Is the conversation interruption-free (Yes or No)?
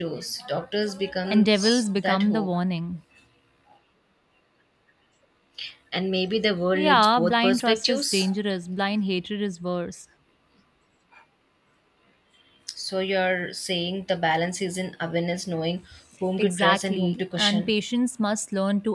No